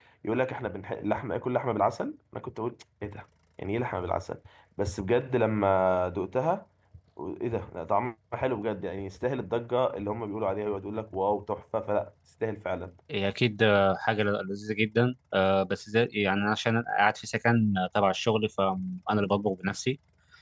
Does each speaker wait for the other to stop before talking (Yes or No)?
Yes